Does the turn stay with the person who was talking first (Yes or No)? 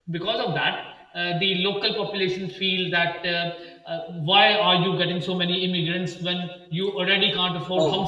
Yes